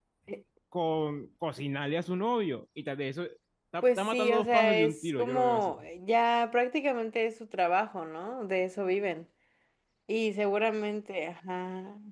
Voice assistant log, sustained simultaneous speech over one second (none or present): present